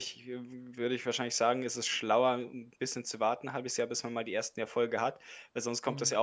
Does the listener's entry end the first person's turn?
No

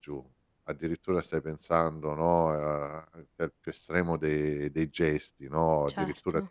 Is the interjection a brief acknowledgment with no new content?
Yes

